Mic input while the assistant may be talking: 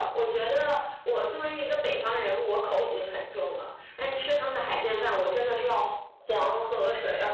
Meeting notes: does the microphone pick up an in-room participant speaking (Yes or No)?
No